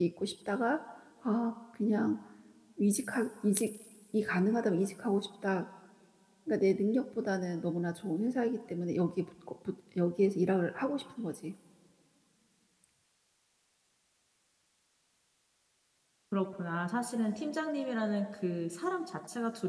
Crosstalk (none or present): none